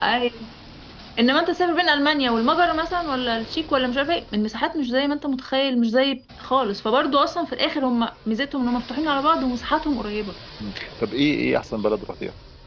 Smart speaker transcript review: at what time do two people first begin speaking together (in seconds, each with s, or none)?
none